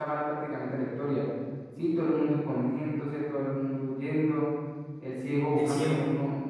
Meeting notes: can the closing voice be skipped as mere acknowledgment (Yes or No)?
Yes